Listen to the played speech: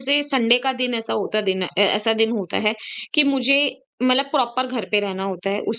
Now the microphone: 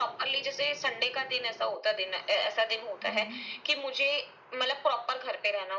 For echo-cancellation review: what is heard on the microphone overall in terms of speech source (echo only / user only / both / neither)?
both